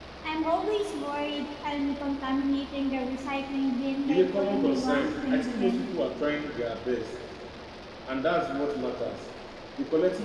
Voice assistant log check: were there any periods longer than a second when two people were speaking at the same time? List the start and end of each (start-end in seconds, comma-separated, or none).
4.1-5.8